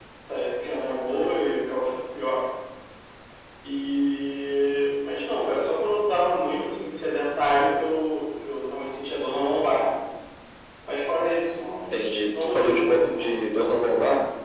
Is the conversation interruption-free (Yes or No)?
No